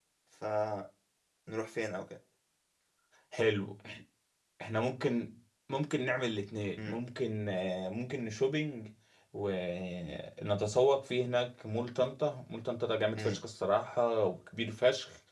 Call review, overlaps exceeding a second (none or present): none